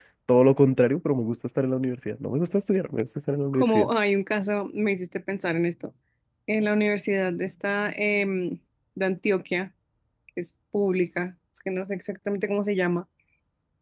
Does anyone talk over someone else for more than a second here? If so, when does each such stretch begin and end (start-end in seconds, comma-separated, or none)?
none